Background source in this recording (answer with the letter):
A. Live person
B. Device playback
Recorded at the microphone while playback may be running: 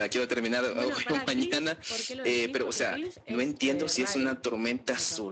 A